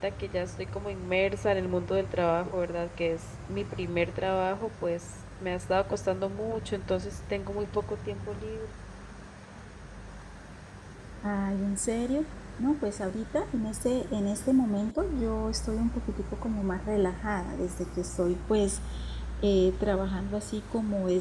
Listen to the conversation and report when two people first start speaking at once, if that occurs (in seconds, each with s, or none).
none